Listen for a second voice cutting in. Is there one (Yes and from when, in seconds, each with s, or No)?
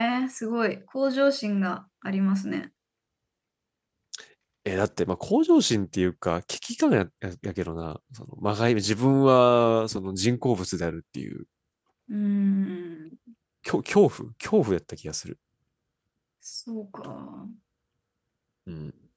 No